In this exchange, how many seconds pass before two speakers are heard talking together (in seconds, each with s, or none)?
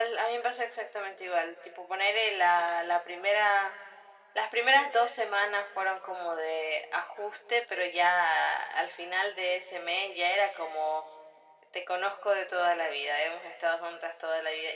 none